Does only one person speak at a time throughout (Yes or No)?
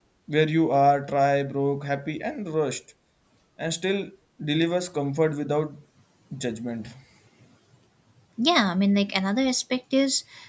Yes